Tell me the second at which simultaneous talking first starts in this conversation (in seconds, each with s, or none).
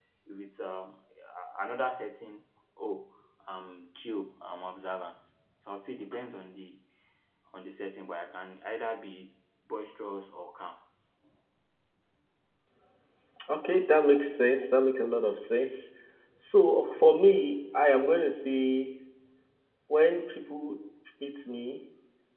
none